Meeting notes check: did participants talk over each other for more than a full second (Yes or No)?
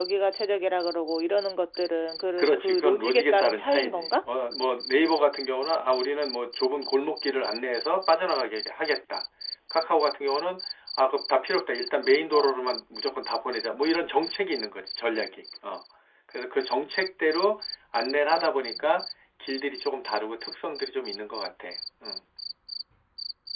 Yes